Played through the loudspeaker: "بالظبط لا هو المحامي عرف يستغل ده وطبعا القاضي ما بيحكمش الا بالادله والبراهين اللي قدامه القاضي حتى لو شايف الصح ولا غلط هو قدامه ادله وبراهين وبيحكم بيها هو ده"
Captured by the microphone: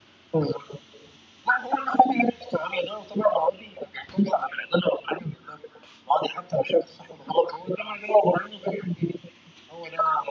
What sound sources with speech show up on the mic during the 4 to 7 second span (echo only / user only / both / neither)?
echo only